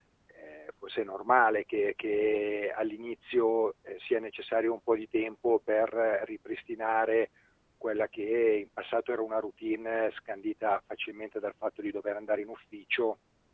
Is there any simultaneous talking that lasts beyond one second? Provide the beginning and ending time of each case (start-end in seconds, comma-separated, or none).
none